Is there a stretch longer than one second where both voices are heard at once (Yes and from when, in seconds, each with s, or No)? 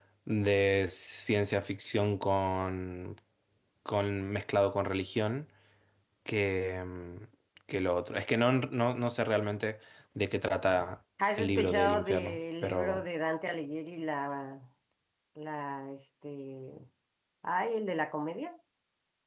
Yes, from 11.2 s